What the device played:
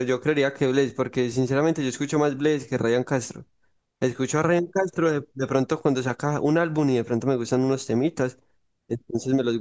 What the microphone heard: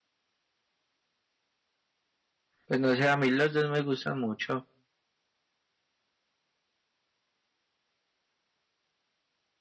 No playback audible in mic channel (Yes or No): Yes